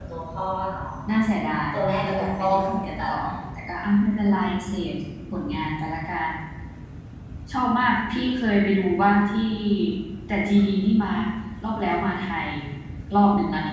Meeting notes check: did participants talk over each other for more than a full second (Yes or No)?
Yes